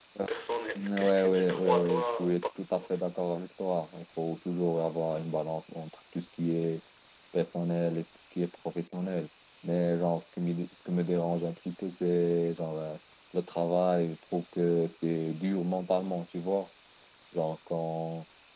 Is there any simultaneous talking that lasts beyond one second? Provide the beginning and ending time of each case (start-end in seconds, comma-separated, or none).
0.8-2.8